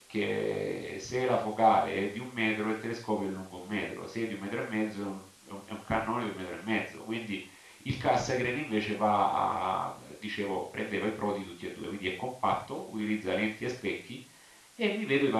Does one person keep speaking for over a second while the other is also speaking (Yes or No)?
No